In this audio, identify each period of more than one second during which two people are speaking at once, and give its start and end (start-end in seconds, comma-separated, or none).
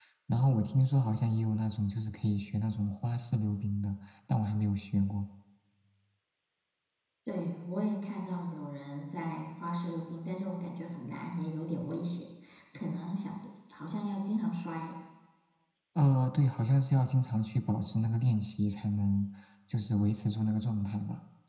none